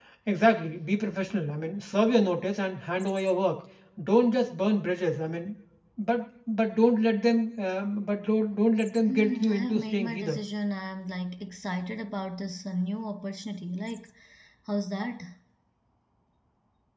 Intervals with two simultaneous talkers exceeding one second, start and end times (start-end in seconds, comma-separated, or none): 9.1-10.4